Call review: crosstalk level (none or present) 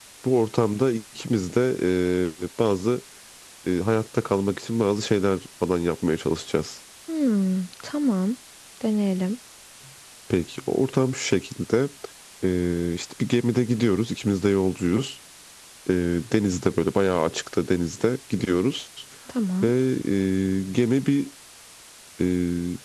none